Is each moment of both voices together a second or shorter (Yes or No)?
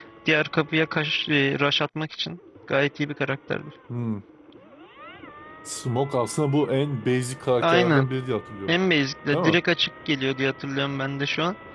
Yes